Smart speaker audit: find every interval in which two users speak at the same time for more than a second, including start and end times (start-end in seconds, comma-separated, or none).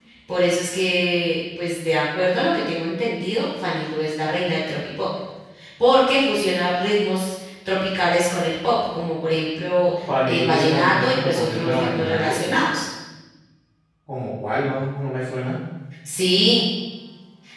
10.2-12.4